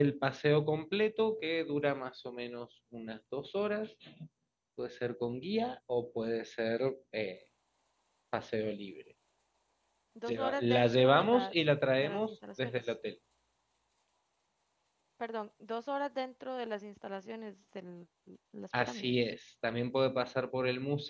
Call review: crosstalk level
present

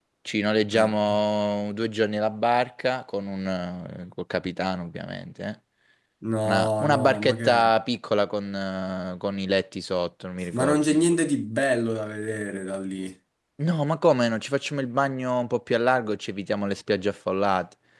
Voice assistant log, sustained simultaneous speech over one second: present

